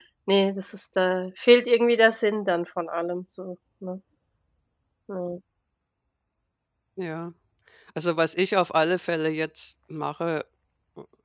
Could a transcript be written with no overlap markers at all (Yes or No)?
Yes